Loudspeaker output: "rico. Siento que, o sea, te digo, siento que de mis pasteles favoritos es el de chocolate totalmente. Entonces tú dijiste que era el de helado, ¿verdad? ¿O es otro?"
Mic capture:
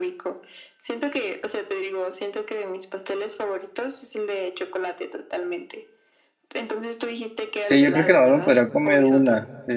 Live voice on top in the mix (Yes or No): Yes